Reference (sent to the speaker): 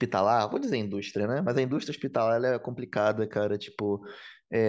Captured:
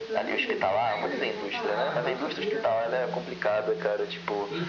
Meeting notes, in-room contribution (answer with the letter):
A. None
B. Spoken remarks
B